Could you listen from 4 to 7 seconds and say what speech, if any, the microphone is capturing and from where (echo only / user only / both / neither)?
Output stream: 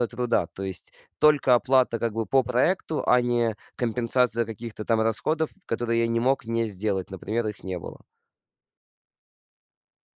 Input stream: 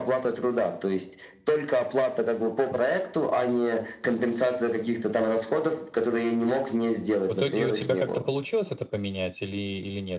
echo only